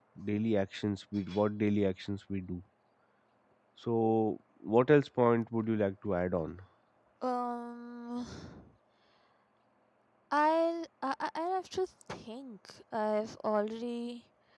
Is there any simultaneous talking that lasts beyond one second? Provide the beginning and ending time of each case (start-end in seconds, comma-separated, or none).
none